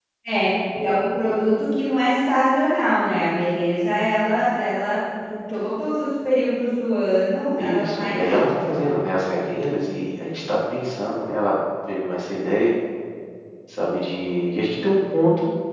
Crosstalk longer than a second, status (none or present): present